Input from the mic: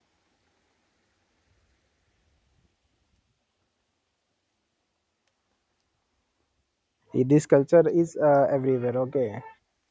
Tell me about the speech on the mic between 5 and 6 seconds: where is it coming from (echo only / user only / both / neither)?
neither